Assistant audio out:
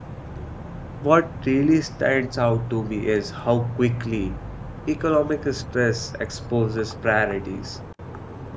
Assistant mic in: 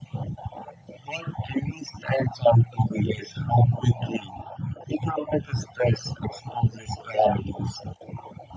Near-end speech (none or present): none